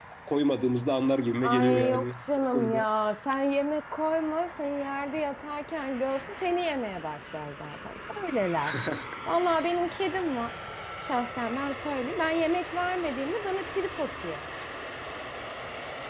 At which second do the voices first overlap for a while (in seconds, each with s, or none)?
1.4 s